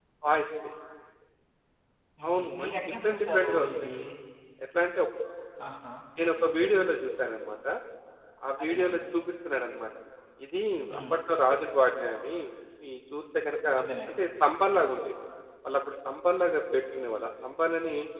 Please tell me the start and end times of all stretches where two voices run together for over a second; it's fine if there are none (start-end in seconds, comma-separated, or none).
2.3-3.7